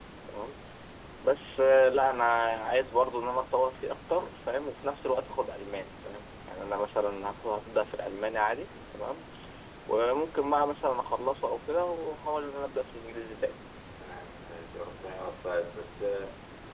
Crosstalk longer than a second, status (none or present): none